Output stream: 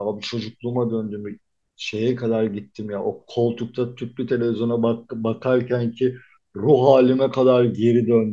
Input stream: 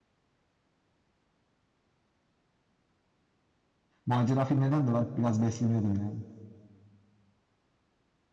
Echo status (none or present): none